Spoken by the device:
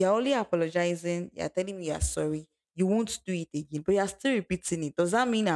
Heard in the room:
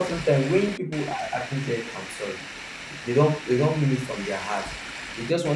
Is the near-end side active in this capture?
Yes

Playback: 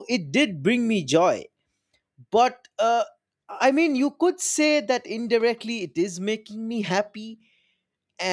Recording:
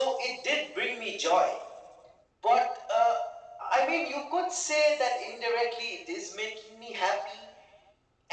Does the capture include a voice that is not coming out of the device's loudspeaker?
No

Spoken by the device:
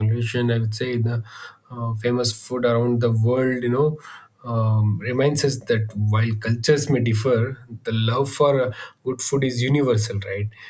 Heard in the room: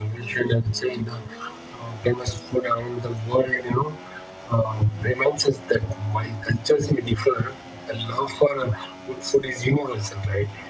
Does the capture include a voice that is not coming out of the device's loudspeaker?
No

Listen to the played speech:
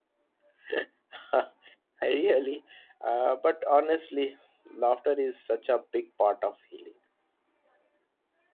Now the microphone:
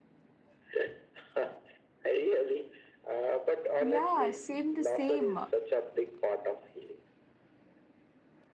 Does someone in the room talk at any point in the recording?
Yes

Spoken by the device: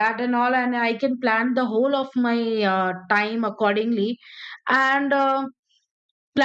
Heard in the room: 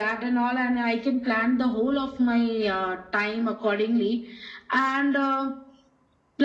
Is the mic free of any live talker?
Yes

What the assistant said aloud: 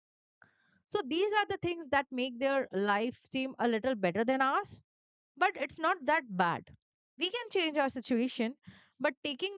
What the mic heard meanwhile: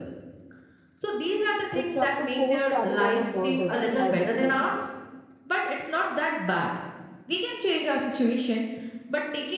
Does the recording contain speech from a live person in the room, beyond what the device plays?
Yes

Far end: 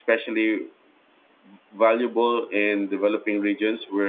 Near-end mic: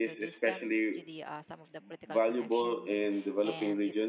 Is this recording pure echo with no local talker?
No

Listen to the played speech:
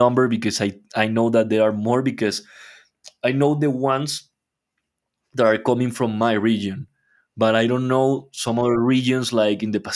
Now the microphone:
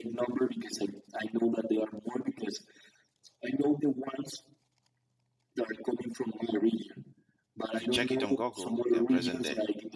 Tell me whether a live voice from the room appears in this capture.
Yes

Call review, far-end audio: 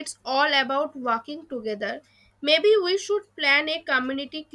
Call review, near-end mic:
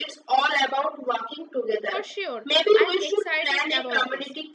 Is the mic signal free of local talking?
No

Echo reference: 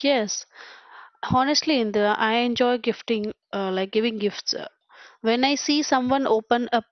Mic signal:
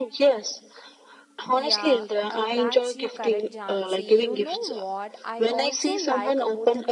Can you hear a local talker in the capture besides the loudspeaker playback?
Yes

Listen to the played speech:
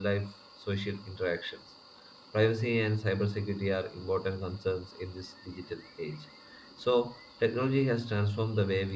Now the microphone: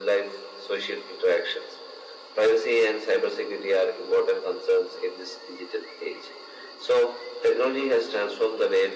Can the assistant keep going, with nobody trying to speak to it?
Yes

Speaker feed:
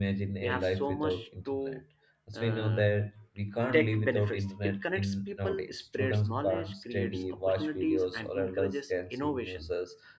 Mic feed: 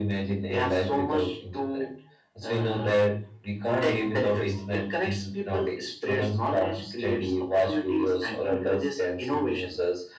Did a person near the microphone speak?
No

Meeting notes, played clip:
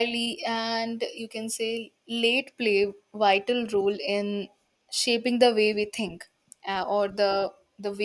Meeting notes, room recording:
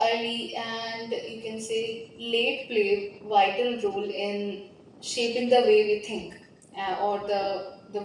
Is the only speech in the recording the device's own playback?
Yes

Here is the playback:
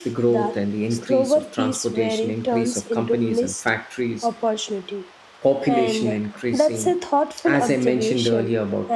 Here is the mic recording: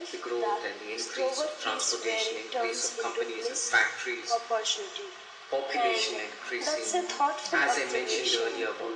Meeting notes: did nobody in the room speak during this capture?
No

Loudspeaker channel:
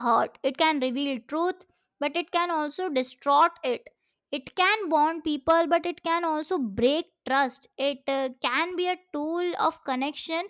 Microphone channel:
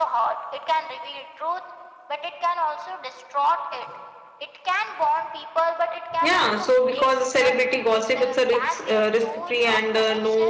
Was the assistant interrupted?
Yes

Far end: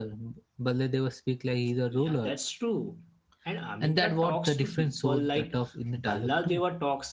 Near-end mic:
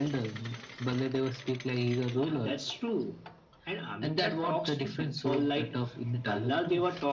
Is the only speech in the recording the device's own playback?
Yes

